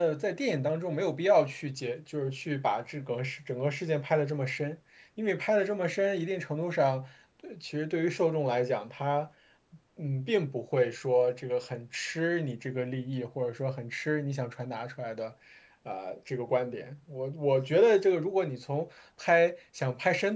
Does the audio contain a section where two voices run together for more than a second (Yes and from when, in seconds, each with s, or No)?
No